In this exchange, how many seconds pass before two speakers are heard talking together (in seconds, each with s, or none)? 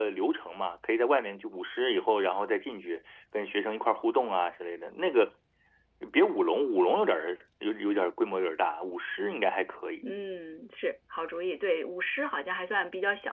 none